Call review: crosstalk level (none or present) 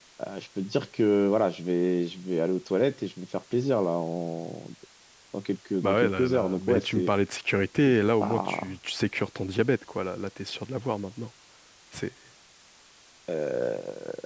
present